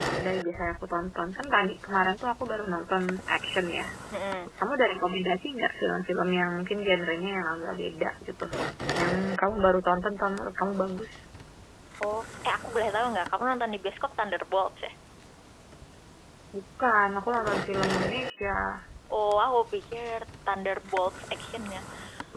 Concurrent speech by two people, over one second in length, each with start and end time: none

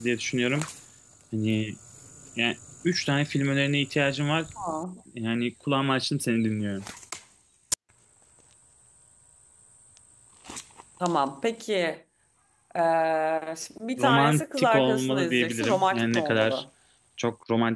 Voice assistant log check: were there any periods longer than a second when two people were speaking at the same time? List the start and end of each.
14.0-16.6

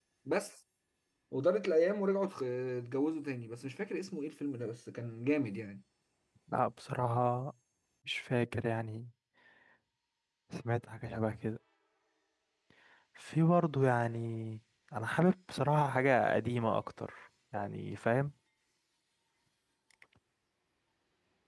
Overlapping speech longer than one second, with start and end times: none

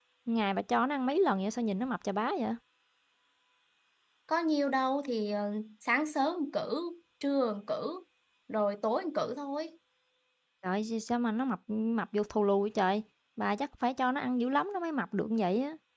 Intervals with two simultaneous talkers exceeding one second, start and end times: none

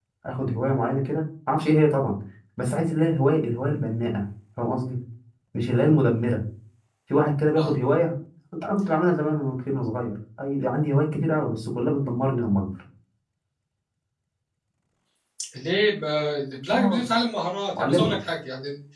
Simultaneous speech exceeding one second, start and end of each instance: none

